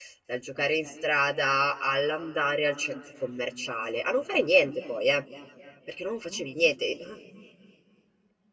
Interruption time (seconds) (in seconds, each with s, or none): none